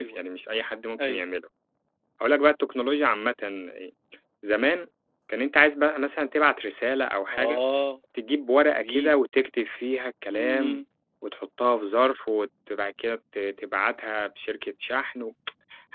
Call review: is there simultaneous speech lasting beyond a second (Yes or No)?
No